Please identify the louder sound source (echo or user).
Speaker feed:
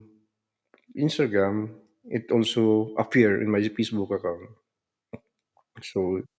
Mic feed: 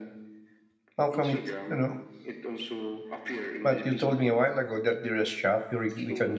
user